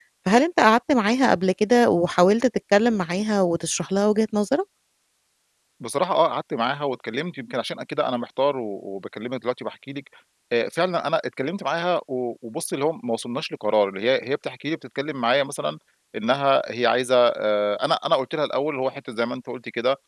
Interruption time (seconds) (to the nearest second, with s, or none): none